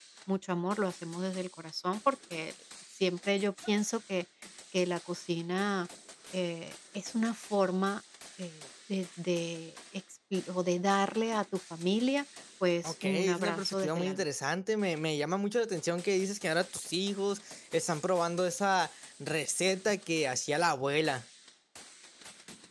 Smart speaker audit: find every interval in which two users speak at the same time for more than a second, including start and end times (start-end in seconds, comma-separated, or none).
12.8-14.2